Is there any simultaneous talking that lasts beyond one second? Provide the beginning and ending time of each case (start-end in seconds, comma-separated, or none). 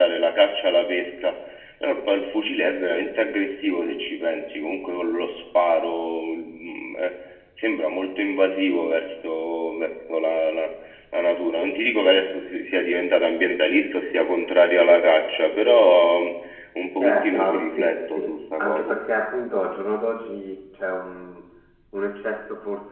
17.0-18.9